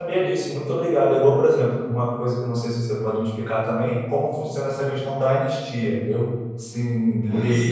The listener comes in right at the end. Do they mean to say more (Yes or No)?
Yes